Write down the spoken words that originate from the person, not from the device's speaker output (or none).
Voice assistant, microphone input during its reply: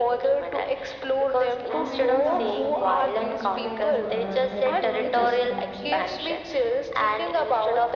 and when it comes to these terms like uh, territorial expansion